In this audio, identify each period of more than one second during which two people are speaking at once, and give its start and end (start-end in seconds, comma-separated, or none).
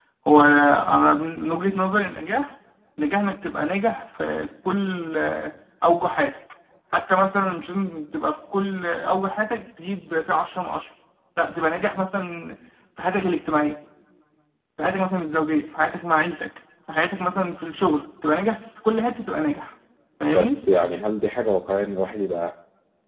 none